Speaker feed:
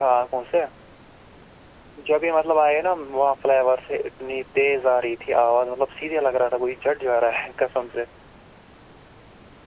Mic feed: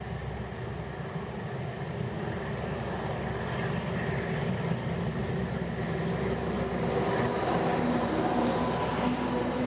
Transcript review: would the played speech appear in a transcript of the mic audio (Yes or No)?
No